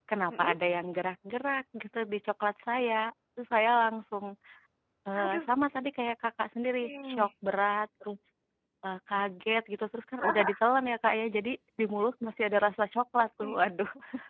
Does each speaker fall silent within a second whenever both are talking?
Yes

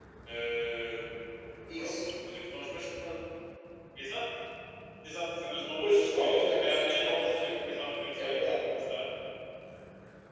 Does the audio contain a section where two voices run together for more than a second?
Yes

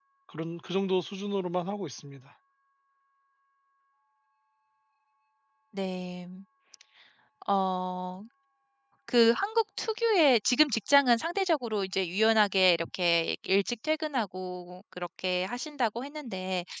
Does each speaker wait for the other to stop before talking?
Yes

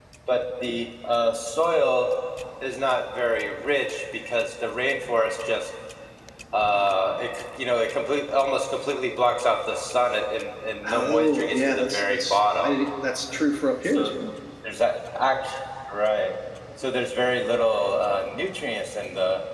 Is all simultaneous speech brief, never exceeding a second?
No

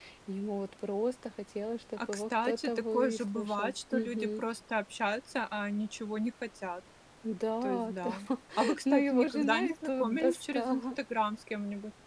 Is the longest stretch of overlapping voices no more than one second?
No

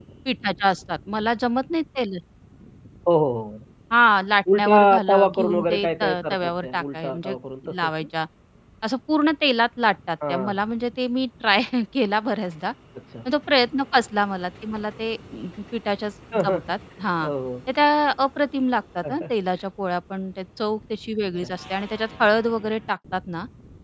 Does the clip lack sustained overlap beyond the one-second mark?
No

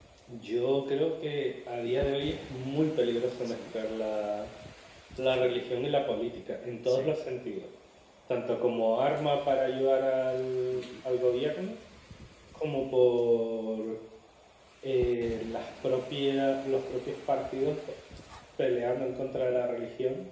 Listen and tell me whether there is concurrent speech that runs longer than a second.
No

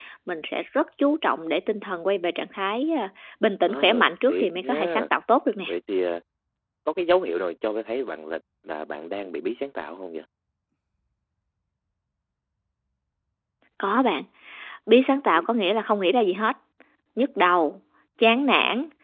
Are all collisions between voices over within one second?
No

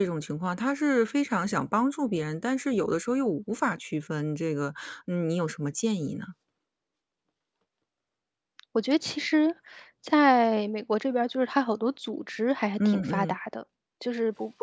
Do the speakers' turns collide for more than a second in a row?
No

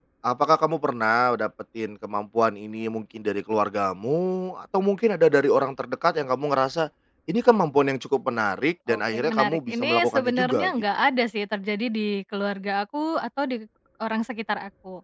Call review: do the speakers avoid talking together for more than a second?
No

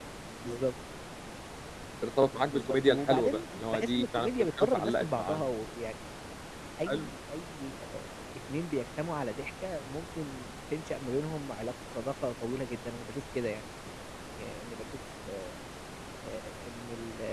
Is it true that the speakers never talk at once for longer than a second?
No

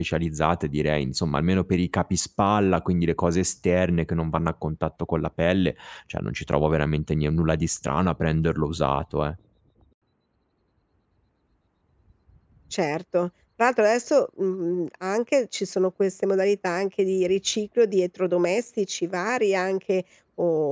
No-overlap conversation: Yes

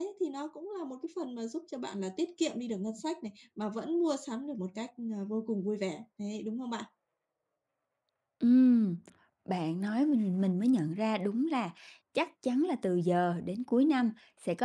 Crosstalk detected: No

